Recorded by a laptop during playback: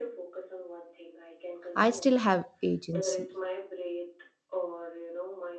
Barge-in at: 1.8 s

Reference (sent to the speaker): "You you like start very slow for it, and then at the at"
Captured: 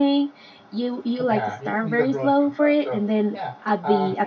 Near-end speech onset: 1.3 s

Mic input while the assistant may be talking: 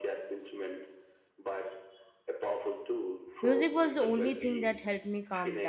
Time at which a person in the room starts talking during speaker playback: 3.4 s

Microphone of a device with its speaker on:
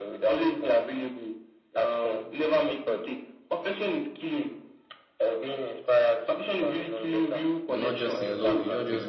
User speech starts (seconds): 7.7 s

